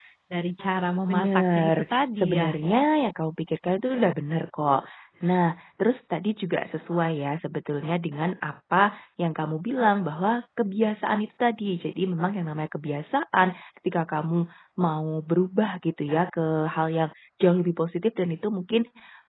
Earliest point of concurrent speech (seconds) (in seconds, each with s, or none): 1.1 s